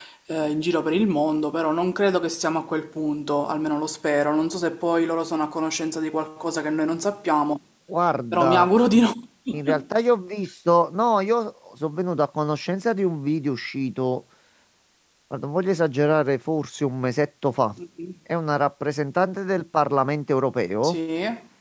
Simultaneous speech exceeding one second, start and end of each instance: none

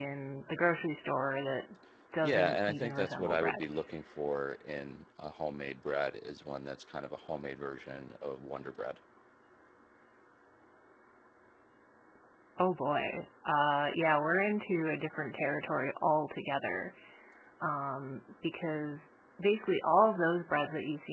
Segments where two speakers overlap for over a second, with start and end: 2.2-3.6

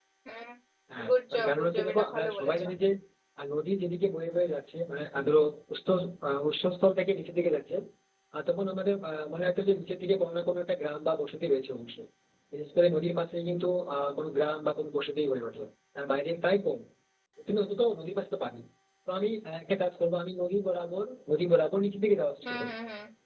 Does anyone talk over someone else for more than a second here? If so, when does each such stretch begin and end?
1.1-2.6

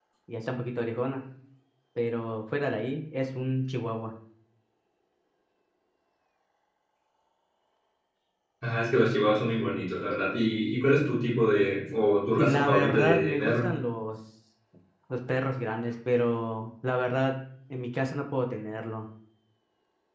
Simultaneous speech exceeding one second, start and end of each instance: 12.4-13.7

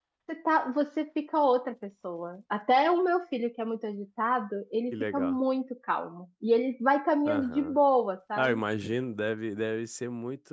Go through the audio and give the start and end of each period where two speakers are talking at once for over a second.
none

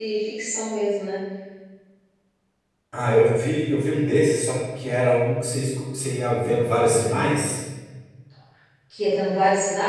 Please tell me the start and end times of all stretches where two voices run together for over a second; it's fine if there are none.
none

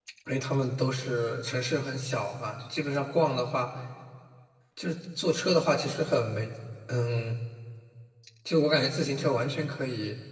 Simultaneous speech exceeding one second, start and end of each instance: none

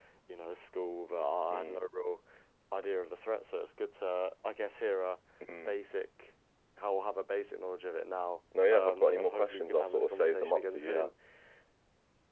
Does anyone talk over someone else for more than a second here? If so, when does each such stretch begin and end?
8.7-11.1

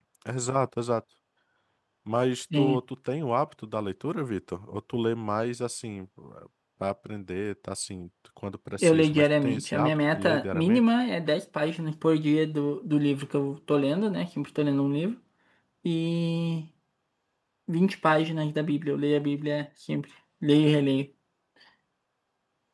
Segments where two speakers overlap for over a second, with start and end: 8.8-10.8

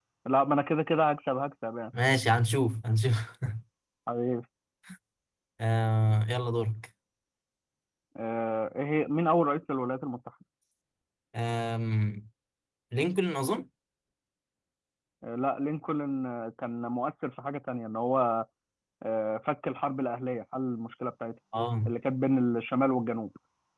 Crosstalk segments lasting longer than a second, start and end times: none

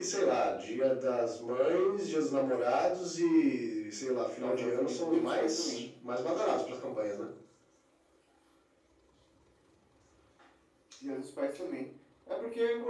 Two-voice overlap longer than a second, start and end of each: 4.4-5.8

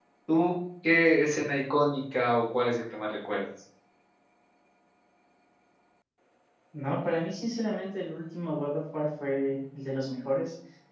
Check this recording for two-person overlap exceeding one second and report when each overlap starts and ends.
none

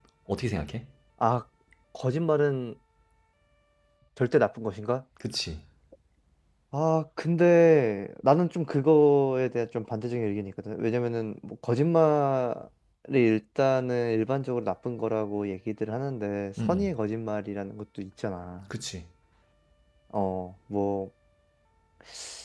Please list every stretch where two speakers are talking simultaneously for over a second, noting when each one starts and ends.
none

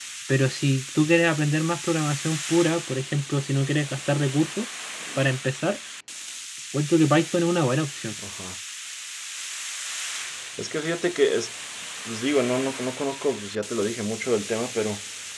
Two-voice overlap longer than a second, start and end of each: none

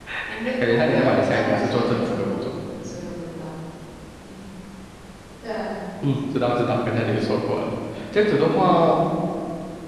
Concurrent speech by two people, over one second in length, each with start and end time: 0.7-2.4

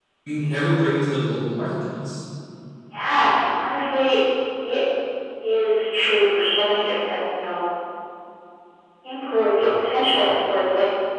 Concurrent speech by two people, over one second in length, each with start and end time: none

